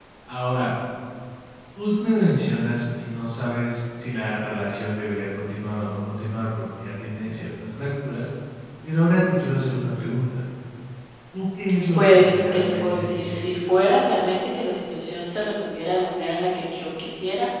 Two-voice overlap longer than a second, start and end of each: 11.9-13.6

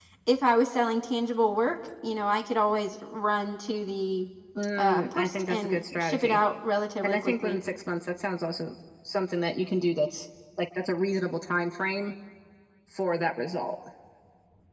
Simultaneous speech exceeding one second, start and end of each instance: 4.8-6.4

